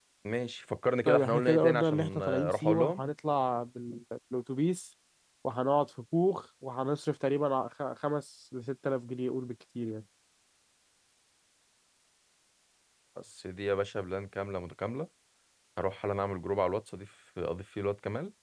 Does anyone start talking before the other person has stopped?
Yes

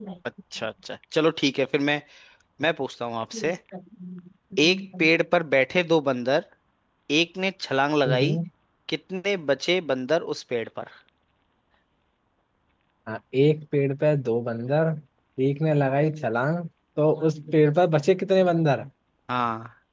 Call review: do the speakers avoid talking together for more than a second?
Yes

